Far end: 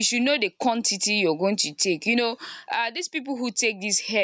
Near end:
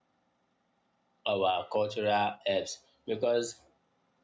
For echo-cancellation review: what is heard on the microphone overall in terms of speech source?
user only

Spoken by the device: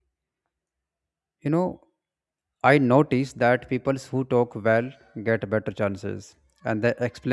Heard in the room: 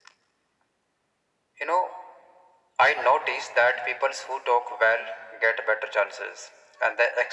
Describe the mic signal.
echo only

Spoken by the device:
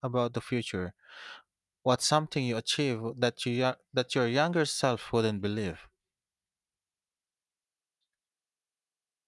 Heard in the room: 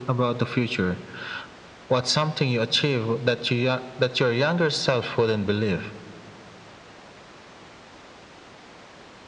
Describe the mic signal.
echo only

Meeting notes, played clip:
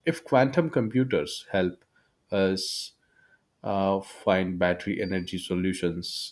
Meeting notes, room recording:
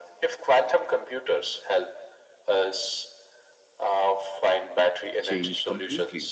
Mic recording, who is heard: both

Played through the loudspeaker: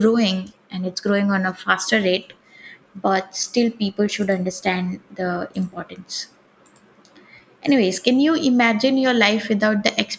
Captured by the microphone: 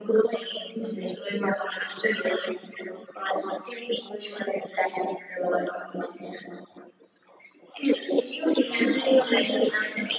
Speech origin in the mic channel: both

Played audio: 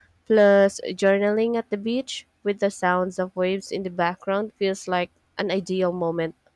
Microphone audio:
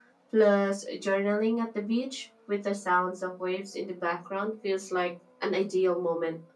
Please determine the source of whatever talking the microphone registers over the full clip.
echo only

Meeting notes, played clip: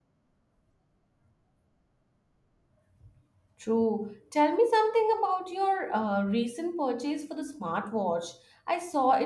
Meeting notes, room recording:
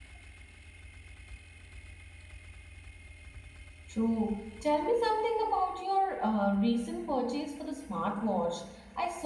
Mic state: echo only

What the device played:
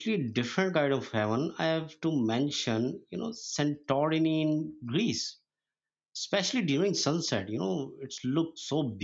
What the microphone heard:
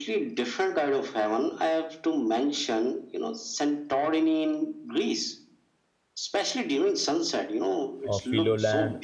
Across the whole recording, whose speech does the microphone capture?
both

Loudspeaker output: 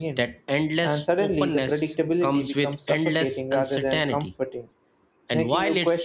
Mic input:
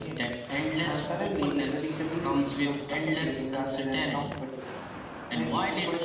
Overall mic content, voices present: echo only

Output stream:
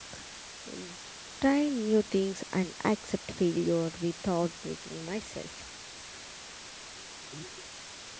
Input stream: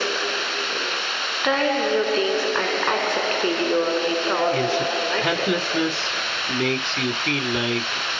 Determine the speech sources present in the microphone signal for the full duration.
both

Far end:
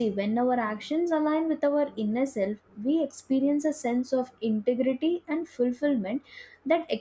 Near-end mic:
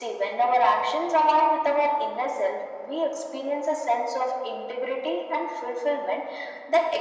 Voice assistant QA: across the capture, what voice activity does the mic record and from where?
echo only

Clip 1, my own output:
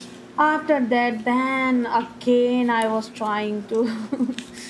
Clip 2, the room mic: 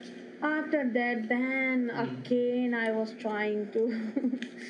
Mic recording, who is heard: both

